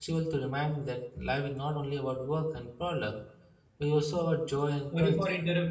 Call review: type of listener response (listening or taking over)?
taking over